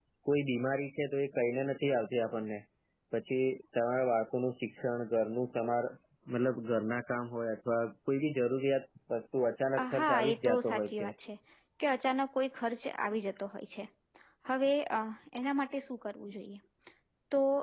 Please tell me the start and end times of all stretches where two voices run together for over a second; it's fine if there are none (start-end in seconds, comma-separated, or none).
9.8-11.0